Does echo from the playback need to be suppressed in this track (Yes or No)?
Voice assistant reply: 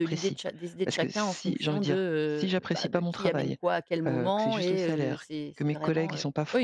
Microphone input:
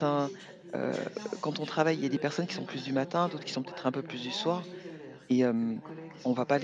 Yes